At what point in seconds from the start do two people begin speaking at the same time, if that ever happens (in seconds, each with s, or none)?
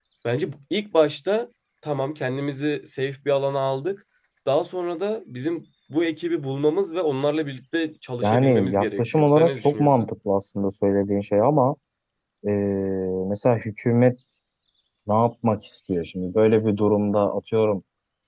8.2 s